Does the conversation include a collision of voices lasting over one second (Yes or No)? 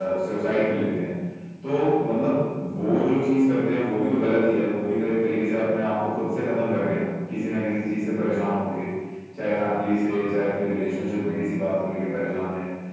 No